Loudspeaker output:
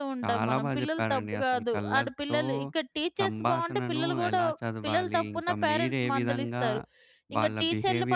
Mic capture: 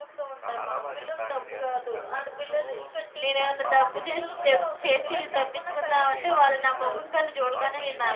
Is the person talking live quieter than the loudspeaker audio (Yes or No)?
No